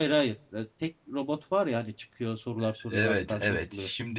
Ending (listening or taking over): taking over